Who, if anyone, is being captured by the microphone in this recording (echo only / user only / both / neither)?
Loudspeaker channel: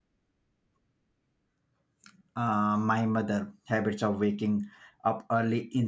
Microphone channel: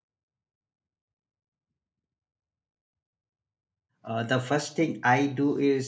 user only